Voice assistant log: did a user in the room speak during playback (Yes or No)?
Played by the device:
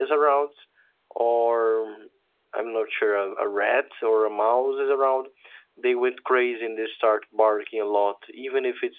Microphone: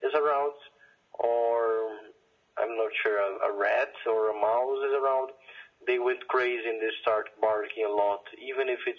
No